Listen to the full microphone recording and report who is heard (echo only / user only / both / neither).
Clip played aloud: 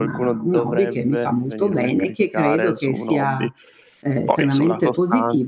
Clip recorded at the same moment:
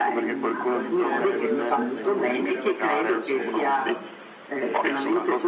both